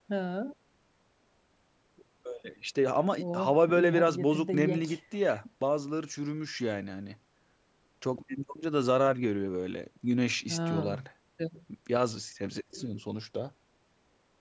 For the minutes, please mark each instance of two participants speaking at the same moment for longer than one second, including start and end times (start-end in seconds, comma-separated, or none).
3.3-5.0